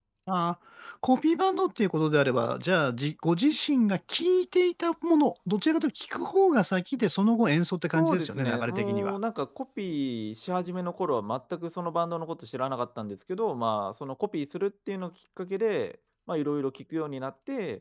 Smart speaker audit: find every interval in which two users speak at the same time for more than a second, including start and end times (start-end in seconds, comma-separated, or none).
8.0-9.2